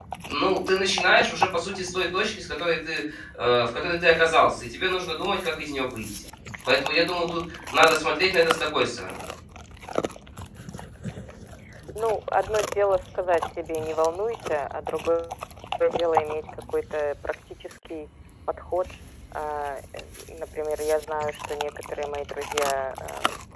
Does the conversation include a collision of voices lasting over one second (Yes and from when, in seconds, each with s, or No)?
No